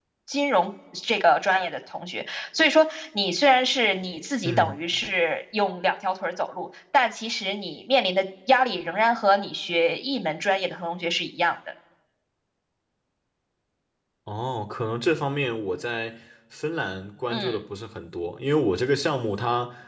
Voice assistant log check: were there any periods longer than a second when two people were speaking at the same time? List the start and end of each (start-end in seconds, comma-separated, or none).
none